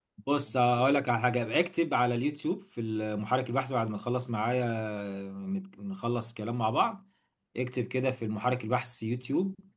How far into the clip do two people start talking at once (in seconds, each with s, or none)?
none